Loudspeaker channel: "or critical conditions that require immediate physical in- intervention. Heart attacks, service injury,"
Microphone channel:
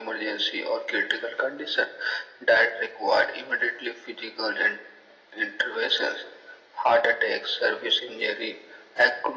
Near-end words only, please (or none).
none